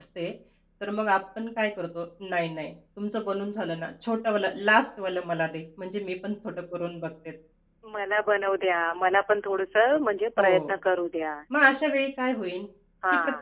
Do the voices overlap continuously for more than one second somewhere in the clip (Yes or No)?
No